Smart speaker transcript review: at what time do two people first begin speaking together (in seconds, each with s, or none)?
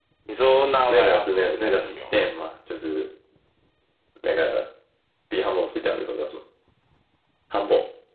0.9 s